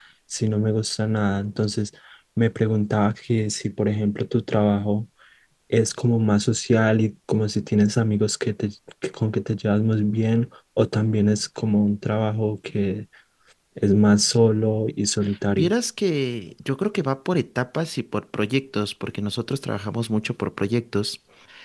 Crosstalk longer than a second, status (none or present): none